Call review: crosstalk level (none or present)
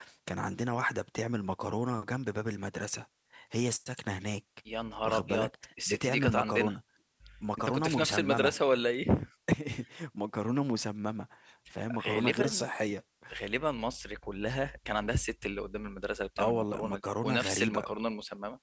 present